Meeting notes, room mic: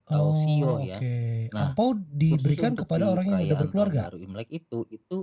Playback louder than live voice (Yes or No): No